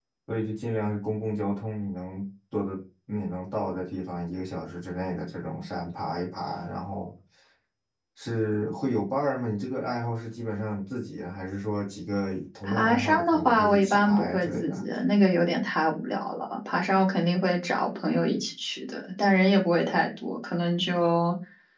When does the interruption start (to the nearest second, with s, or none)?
13 s